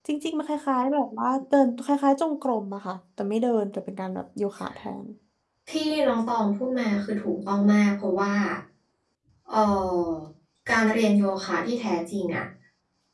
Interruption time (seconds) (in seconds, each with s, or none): none